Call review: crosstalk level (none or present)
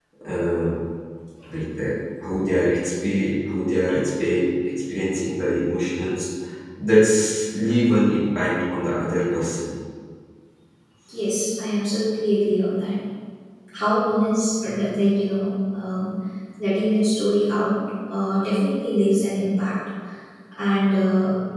none